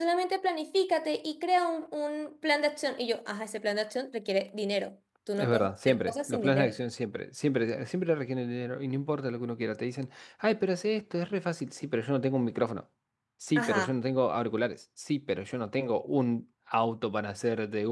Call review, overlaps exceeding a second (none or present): present